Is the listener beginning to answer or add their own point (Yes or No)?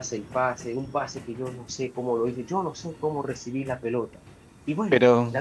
No